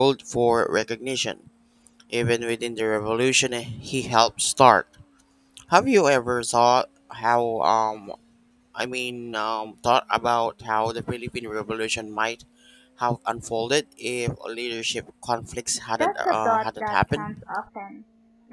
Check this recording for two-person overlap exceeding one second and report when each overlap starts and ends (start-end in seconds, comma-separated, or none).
16.0-17.4